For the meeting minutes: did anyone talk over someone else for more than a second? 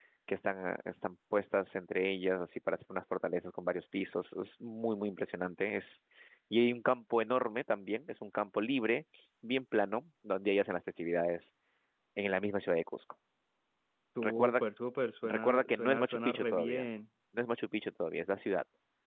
Yes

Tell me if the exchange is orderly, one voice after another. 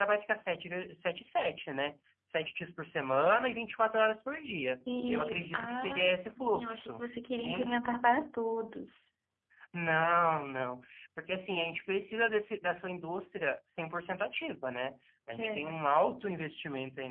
No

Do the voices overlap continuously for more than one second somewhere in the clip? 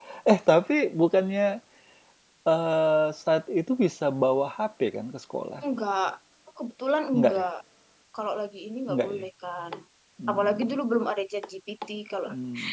No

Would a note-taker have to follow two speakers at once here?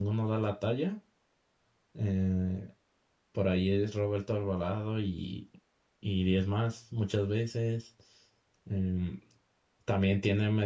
No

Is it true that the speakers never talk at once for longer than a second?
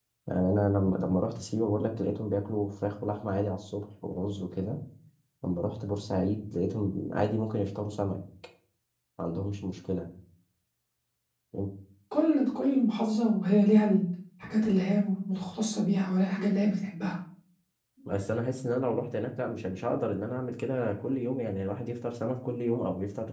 Yes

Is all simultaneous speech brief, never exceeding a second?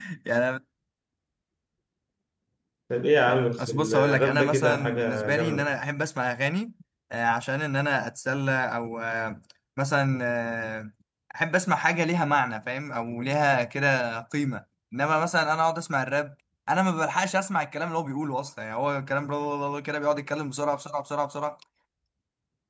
No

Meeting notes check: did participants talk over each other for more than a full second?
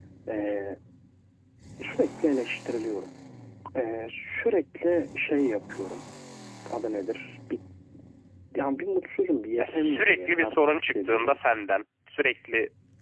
Yes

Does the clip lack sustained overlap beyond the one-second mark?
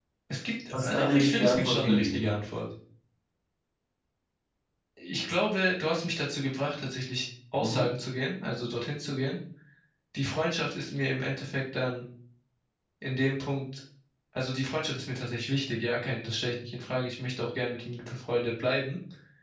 No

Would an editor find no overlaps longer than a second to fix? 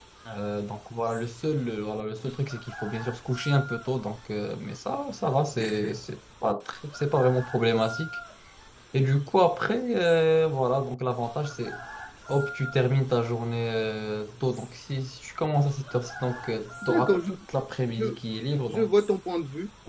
Yes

